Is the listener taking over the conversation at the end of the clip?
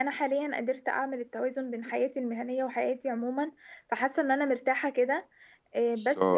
Yes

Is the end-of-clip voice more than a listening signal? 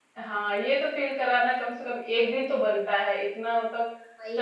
No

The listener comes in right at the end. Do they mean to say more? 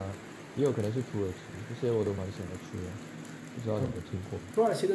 Yes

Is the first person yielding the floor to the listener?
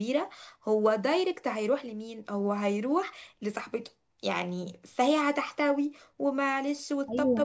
Yes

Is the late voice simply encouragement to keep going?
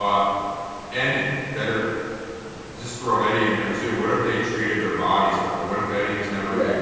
Yes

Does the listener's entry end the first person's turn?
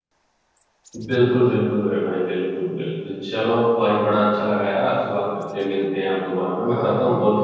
Yes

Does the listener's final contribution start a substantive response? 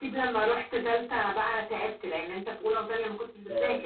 Yes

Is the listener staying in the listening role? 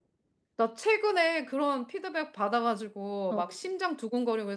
Yes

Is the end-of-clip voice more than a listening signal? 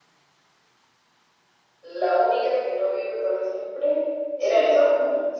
Yes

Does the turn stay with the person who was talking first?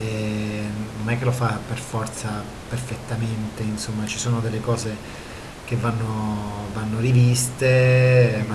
Yes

